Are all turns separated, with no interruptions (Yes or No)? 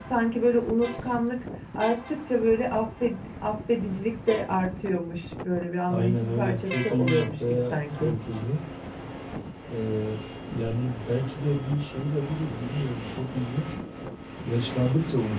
No